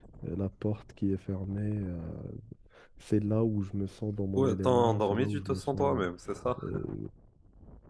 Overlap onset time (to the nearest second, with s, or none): 4 s